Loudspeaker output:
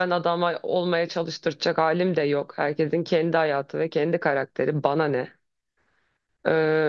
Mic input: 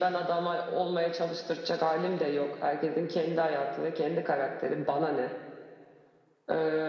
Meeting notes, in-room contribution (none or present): none